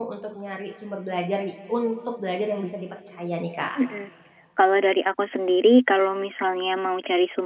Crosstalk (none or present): none